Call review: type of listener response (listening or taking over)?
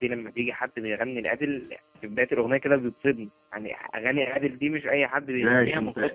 taking over